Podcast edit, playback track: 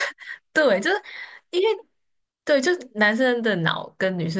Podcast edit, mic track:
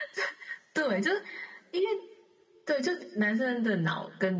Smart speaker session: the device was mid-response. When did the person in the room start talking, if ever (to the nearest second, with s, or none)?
none